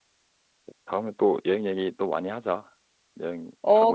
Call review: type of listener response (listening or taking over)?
taking over